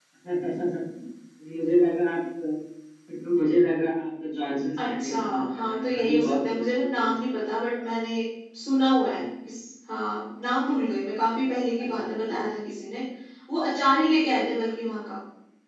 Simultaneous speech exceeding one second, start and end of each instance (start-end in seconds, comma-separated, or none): 4.8-7.0